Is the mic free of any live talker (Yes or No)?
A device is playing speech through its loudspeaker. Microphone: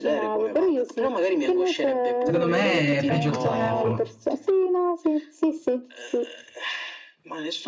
No